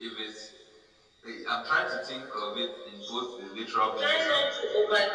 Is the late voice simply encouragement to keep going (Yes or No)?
No